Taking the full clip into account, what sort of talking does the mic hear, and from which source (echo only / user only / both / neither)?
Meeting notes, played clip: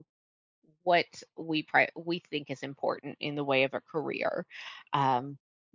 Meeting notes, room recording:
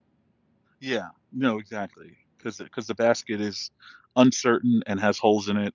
user only